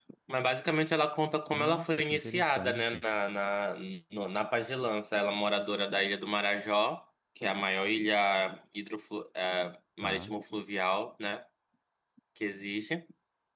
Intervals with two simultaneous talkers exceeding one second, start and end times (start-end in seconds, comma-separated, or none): 1.5-3.0